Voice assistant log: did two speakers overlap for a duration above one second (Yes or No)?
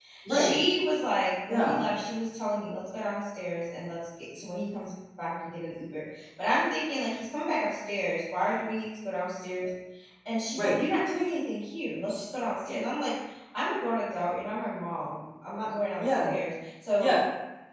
No